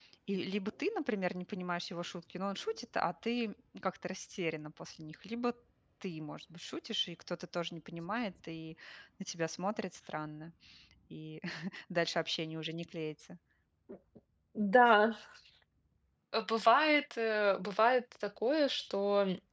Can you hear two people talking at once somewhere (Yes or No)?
No